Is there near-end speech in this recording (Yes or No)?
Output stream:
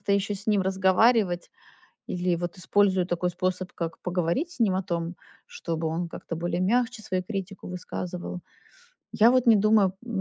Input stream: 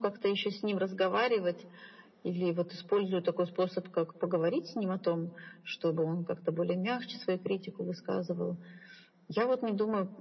No